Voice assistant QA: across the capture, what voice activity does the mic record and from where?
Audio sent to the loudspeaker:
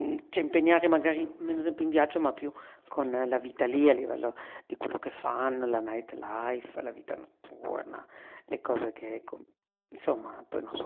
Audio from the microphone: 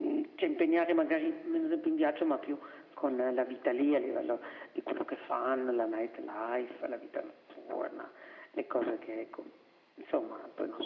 echo only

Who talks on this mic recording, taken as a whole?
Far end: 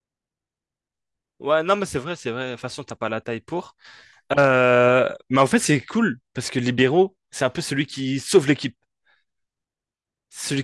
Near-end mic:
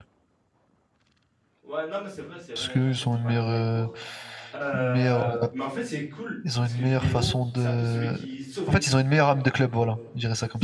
both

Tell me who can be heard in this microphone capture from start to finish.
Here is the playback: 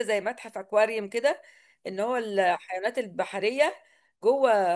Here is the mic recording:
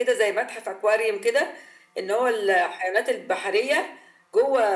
echo only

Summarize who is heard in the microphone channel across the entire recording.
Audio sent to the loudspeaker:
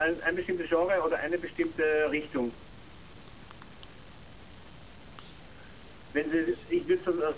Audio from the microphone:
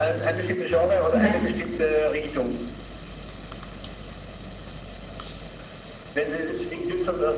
both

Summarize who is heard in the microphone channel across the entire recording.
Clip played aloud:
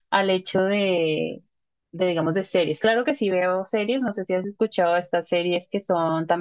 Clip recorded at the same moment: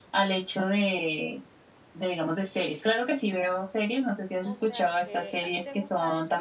both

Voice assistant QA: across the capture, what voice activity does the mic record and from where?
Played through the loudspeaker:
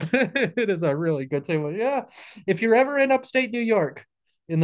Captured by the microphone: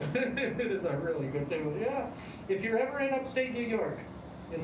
echo only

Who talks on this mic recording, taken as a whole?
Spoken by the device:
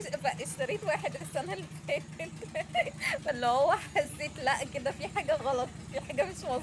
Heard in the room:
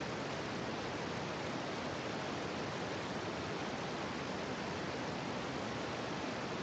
neither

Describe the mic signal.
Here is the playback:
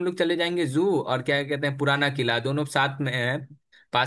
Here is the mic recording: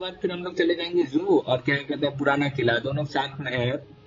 echo only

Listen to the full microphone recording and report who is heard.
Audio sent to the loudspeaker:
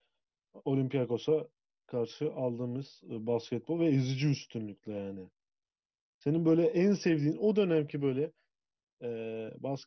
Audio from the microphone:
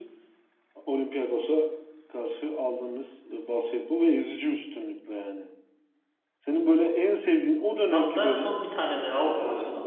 both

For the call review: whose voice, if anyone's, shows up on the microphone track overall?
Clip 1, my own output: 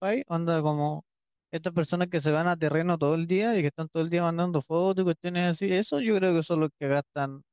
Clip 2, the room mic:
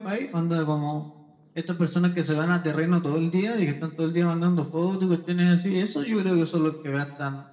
echo only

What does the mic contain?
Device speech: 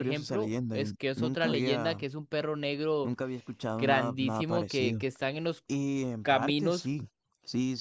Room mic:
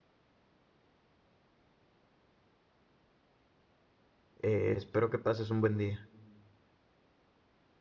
user only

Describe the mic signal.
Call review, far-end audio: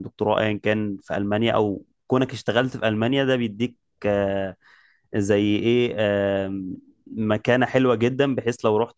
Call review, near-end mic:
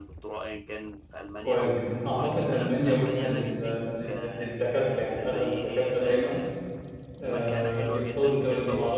both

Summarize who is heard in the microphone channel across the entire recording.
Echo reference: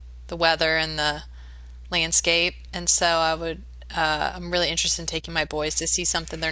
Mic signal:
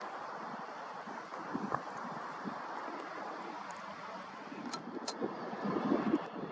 neither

